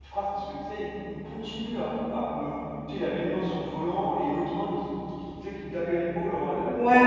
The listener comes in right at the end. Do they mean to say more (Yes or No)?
Yes